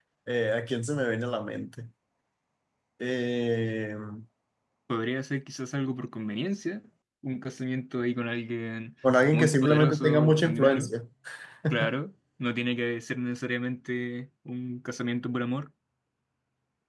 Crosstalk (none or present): present